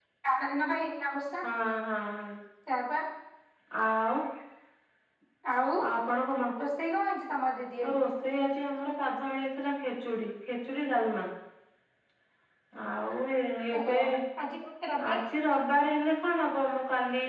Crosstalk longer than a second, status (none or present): none